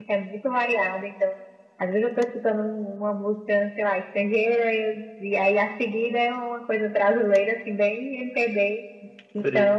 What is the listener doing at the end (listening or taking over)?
listening